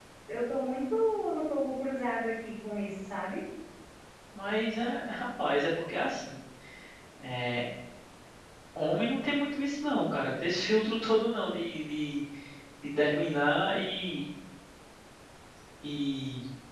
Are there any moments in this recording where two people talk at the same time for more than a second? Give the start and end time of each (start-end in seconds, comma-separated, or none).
none